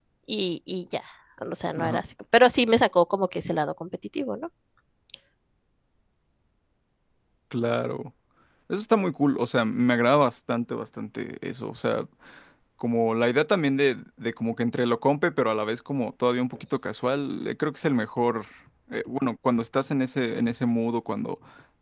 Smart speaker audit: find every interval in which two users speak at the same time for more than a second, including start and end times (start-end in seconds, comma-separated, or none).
none